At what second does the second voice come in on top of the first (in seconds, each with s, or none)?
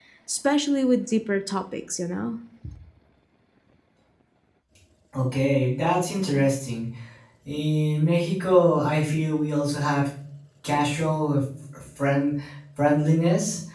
none